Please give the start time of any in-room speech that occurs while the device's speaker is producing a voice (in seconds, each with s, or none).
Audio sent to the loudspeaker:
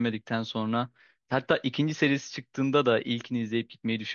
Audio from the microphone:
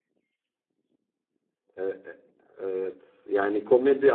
1.8 s